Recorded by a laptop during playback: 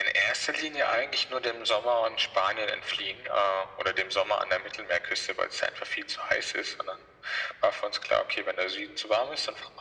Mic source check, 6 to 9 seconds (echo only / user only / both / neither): echo only